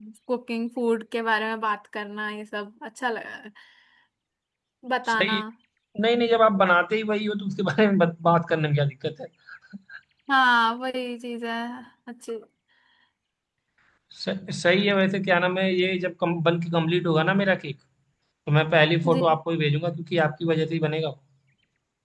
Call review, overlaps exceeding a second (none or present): none